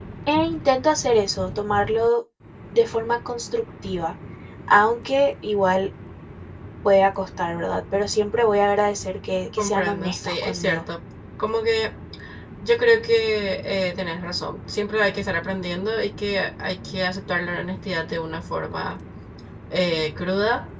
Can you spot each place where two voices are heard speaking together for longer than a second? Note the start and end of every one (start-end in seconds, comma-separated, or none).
9.6-10.8